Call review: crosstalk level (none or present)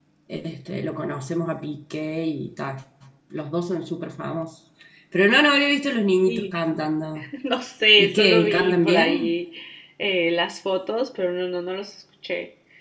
present